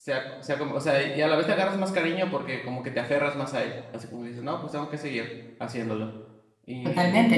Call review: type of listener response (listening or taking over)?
taking over